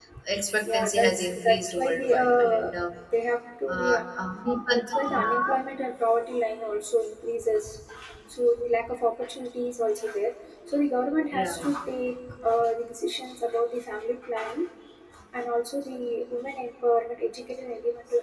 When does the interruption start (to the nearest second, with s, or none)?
1 s